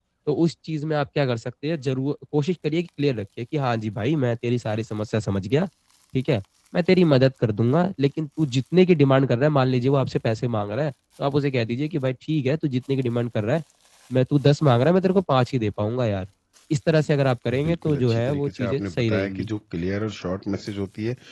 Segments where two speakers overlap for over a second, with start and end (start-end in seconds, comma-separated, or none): 17.6-19.5